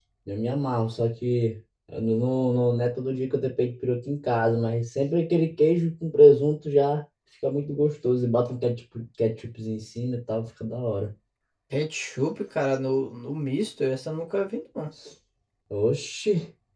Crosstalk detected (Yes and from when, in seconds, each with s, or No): No